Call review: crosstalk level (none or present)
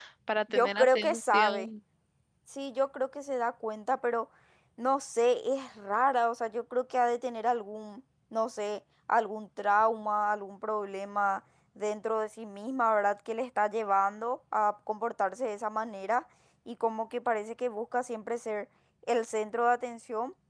present